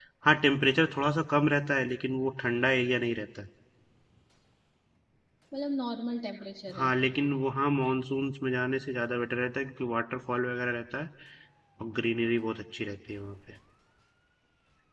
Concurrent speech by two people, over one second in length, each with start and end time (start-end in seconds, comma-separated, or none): none